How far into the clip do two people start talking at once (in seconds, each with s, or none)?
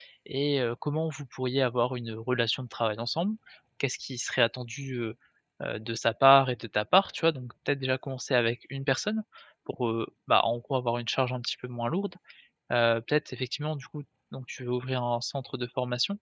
none